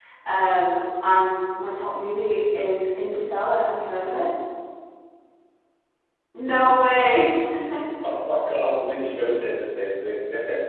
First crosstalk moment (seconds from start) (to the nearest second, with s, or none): none